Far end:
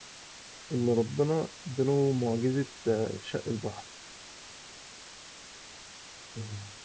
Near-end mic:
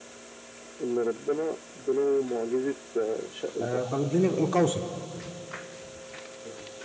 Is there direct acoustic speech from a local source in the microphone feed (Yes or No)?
Yes